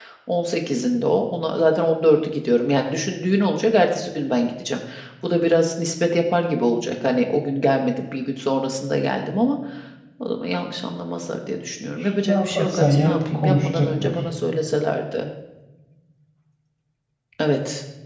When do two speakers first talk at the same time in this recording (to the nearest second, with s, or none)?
12 s